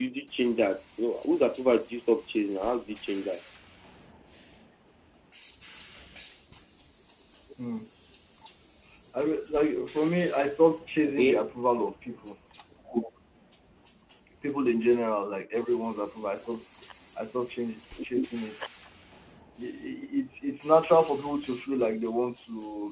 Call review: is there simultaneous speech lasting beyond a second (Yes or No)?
No